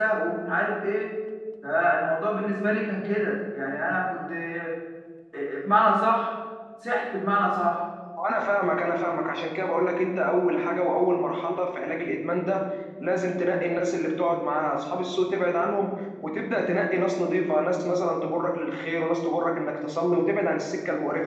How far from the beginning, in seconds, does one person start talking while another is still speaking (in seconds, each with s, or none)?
none